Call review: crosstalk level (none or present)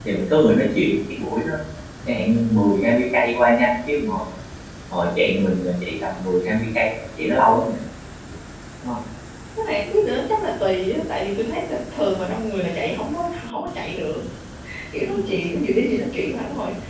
none